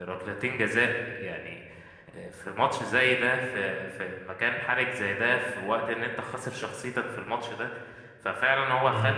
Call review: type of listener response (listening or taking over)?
listening